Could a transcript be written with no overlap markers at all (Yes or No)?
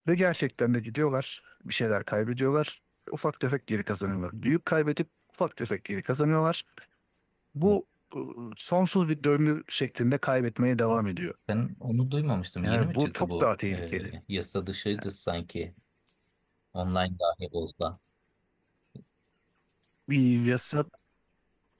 No